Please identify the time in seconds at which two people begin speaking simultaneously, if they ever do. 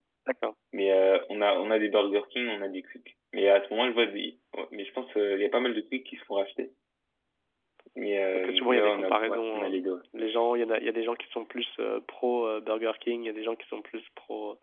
8.3 s

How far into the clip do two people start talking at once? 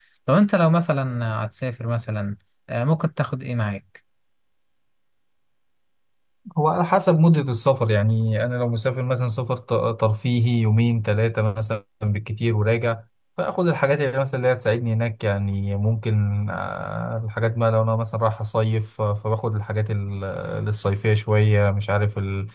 none

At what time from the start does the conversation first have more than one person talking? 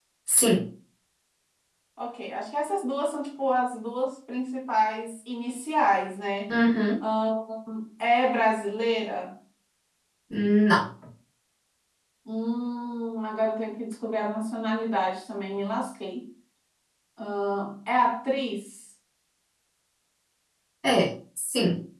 none

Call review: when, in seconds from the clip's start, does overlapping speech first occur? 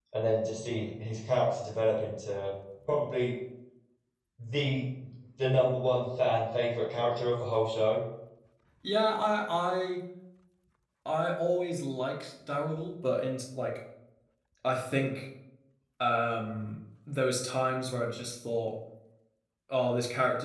none

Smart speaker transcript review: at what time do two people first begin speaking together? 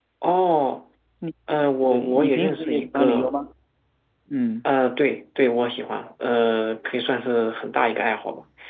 1.9 s

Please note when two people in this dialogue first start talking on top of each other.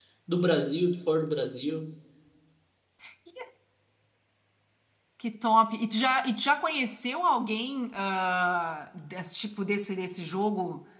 none

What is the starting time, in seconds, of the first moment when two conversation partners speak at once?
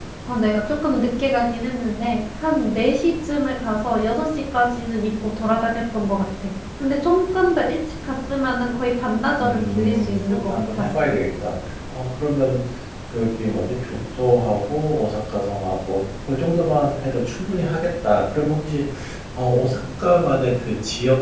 9.4 s

